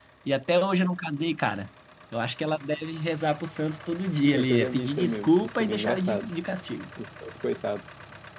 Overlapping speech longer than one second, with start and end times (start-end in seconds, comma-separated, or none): 4.3-6.3